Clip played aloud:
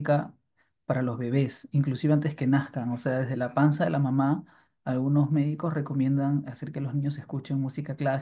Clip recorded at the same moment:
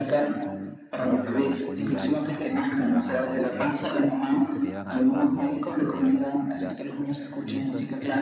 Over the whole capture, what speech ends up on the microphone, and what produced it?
both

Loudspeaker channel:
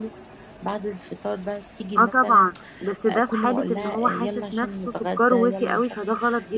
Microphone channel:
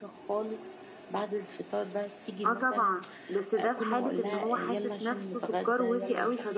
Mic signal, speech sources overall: echo only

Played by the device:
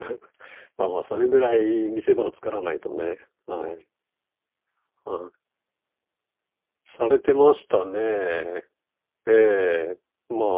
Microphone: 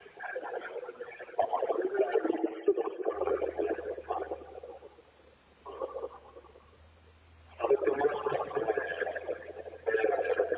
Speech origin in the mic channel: echo only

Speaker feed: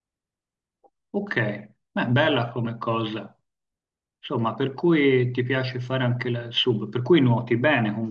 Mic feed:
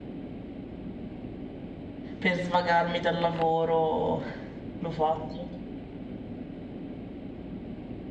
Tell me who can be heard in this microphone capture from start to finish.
user only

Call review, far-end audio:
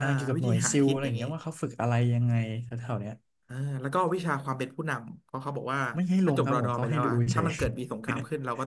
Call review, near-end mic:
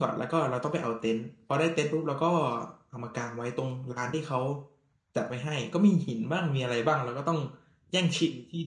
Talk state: user only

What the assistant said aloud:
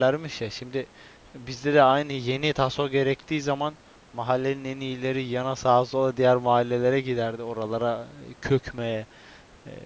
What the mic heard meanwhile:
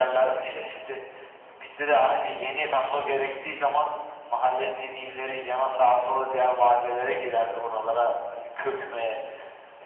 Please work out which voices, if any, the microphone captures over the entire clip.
echo only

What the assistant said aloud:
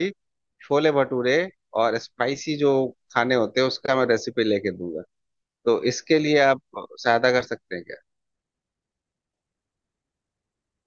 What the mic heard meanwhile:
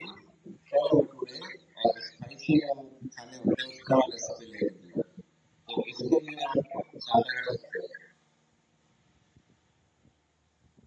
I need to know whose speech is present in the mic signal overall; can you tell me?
echo only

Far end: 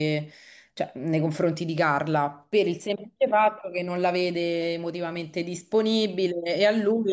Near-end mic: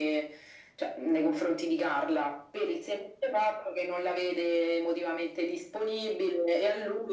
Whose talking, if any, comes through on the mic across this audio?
echo only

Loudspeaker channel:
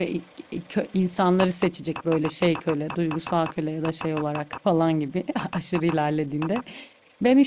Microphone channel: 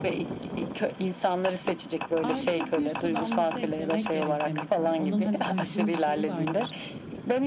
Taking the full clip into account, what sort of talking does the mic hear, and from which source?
both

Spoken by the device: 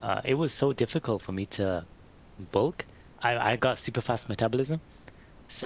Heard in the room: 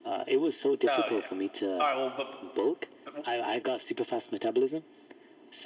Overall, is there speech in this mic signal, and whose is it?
both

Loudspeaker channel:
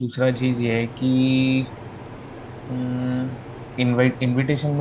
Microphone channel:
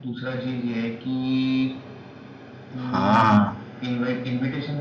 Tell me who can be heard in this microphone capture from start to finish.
both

